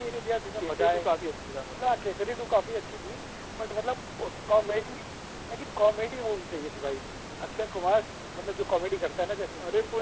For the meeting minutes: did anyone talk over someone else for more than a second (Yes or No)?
No